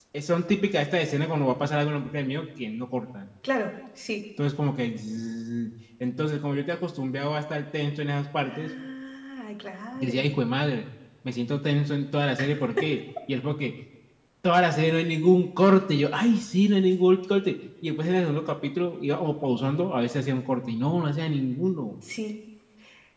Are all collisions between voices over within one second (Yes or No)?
Yes